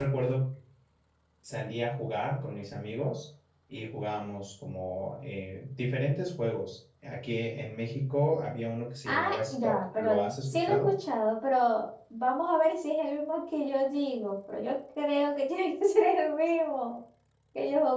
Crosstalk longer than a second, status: present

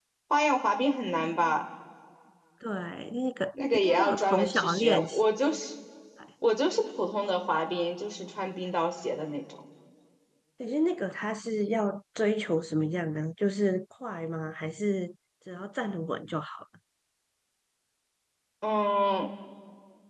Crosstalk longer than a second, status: present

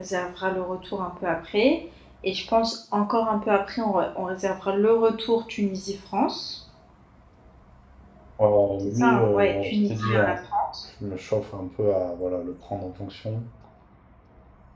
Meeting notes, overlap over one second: present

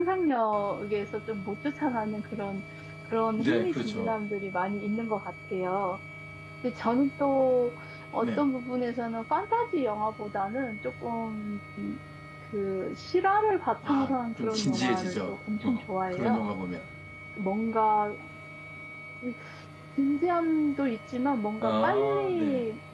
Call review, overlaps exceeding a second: present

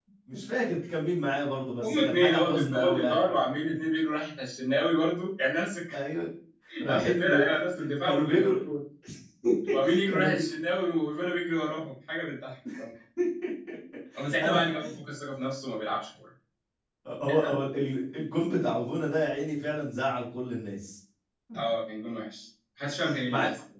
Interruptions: present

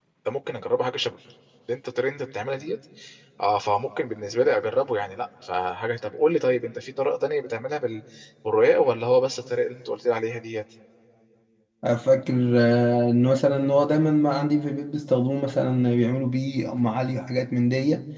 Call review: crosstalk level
none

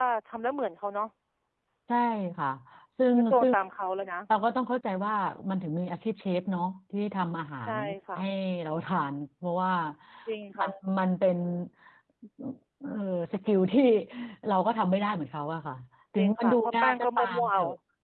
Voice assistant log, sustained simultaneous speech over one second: present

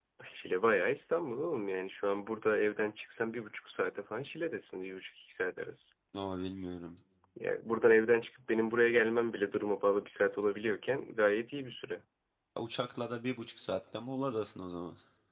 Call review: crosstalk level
none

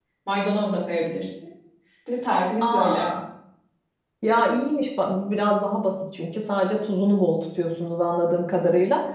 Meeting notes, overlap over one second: none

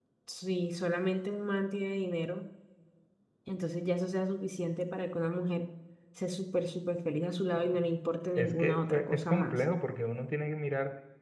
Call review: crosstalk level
present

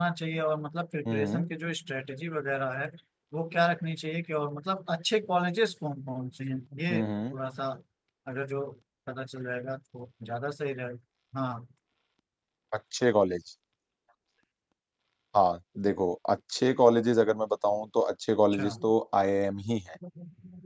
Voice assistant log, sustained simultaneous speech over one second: none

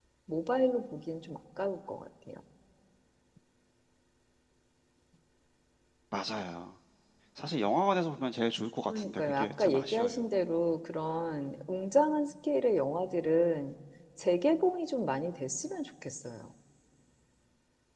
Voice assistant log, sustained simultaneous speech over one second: present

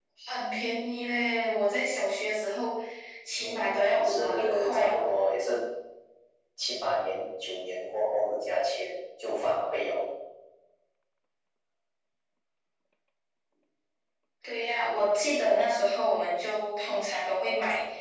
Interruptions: present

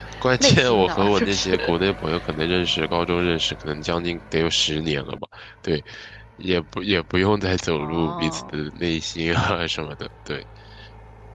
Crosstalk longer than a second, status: present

